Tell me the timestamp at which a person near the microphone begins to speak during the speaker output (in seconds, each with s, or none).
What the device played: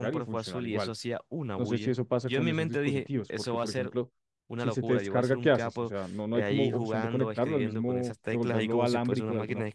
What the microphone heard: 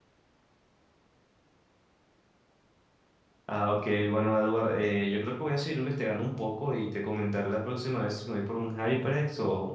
3.5 s